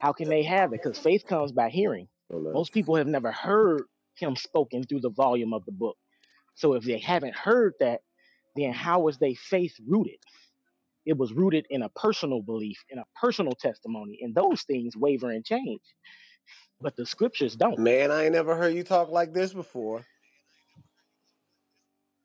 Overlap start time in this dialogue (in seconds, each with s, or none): none